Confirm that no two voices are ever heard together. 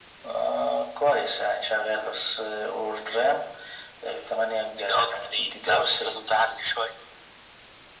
No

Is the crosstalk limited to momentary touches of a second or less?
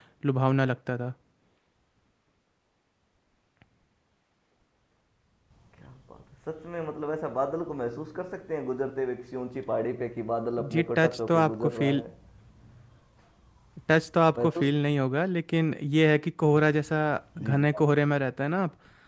No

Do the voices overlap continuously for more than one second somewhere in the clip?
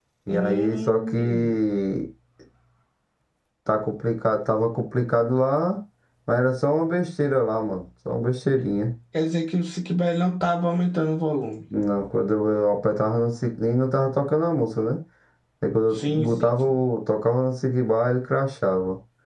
Yes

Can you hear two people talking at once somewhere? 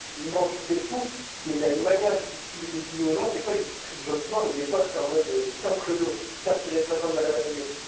No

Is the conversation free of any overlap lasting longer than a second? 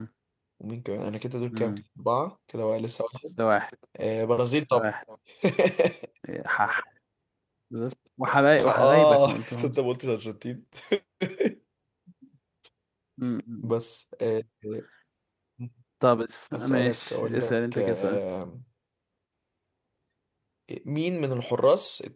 No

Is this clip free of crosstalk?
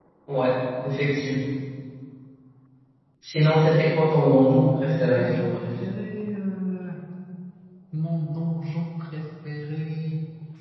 No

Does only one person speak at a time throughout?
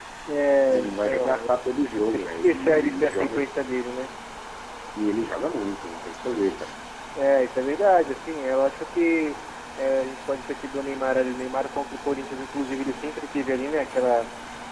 No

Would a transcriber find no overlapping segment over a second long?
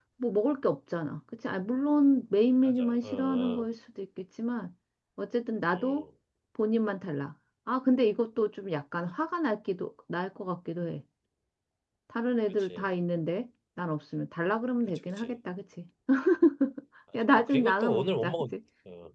No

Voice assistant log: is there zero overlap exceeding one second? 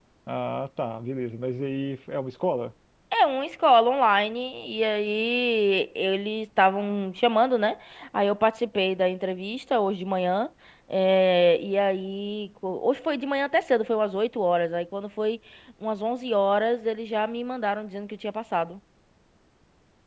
Yes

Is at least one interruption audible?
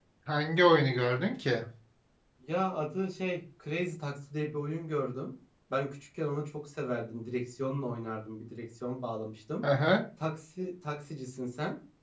No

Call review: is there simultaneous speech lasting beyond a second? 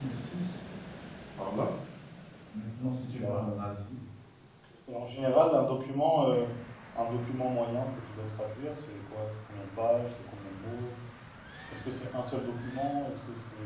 No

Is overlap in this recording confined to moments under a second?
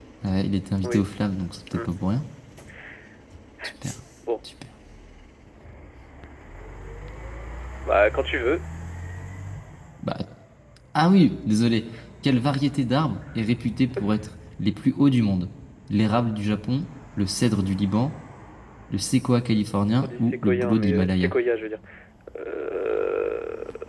No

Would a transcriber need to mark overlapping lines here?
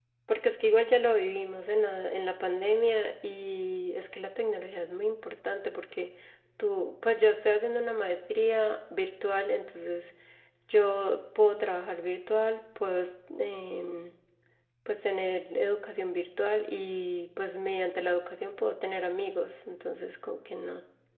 No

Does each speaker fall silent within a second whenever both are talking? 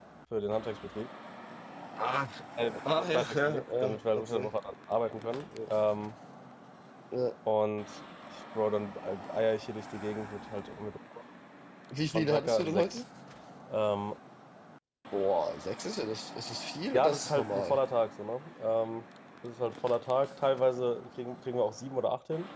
No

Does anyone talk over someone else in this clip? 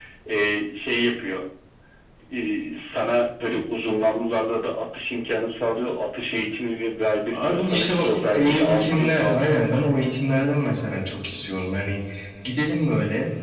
Yes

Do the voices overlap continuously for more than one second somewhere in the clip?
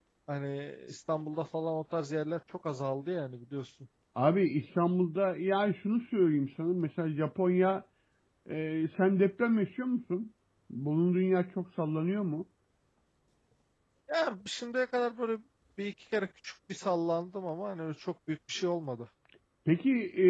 No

